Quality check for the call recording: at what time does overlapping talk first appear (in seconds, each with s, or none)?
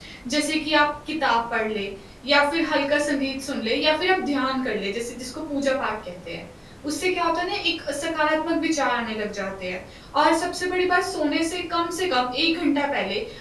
none